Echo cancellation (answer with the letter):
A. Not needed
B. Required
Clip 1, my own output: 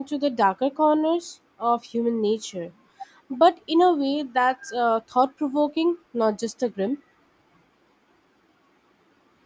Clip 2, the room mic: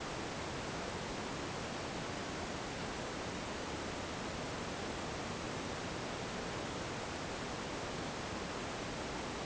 A